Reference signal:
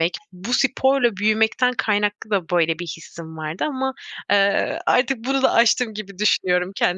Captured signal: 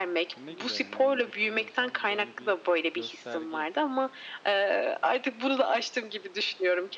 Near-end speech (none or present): present